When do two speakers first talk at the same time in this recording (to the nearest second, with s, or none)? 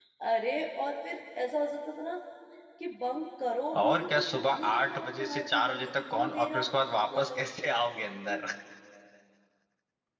4 s